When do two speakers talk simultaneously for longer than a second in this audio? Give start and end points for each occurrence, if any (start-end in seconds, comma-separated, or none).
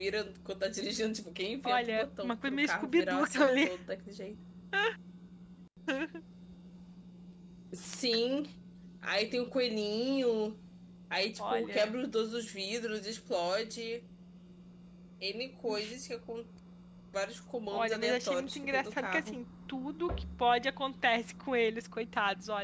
1.6-3.7, 17.7-19.4